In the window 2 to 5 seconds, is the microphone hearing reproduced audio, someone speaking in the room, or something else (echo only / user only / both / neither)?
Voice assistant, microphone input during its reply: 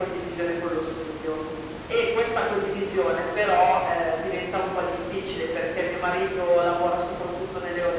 echo only